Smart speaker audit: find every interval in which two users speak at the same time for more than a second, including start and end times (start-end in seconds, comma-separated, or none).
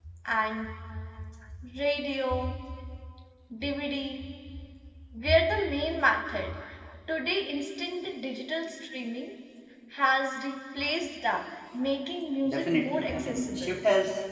12.5-13.8